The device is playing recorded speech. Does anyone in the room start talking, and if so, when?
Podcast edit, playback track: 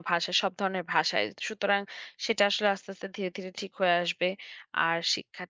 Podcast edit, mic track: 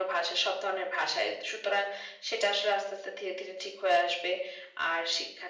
none

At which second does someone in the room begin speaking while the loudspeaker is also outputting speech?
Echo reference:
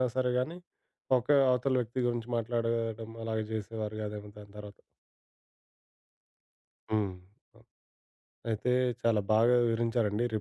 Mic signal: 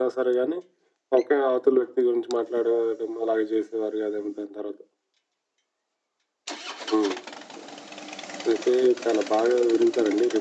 none

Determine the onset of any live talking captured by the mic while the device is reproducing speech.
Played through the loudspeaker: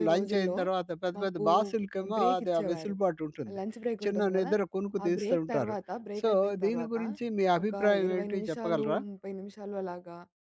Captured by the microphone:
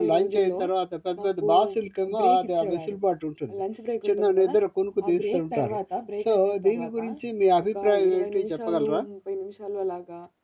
none

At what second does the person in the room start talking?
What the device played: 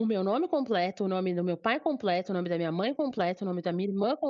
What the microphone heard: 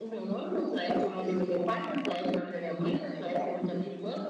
none

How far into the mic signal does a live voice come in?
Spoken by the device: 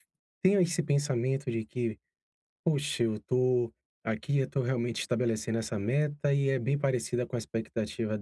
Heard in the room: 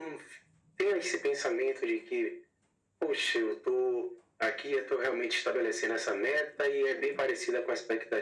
none

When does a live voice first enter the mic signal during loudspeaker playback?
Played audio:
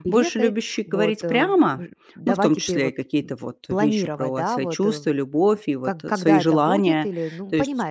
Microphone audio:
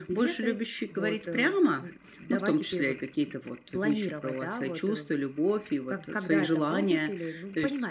none

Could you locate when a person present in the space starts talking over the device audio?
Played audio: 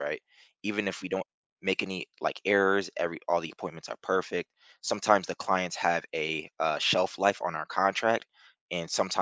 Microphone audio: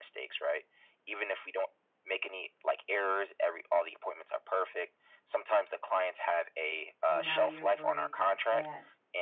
7.0 s

